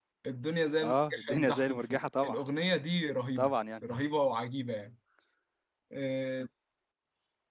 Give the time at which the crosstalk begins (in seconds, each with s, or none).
0.8 s